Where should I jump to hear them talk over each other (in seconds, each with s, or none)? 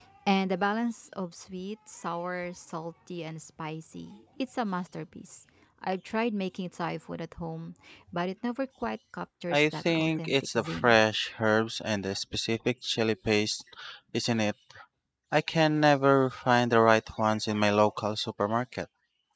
9.5 s